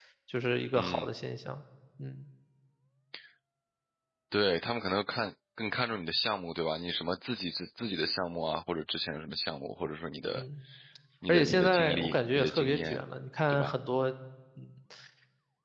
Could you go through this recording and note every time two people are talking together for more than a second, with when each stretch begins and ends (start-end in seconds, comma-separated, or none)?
11.3-13.0